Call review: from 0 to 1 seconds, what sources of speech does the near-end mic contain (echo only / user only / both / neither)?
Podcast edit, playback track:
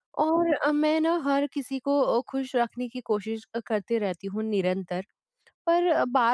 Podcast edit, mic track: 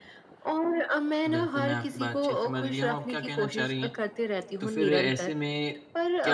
echo only